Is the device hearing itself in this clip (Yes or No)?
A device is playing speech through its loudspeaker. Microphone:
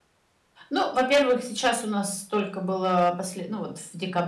No